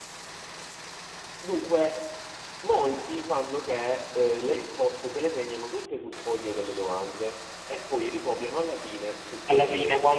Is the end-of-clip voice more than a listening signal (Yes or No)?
Yes